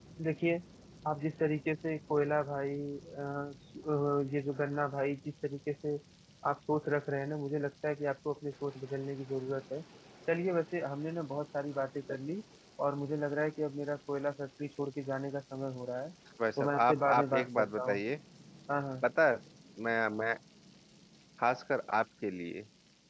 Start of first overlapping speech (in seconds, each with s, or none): 16.6 s